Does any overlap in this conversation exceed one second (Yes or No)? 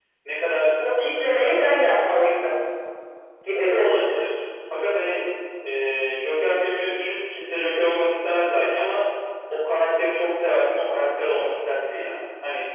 No